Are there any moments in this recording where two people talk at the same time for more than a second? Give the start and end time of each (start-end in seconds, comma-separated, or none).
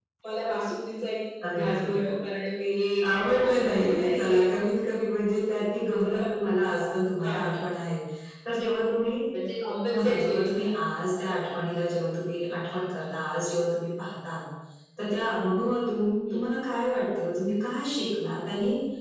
3.1-4.4